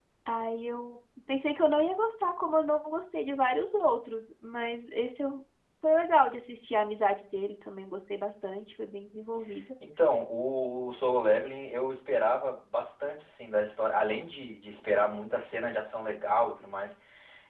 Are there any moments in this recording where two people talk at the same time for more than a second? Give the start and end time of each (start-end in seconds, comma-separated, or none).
none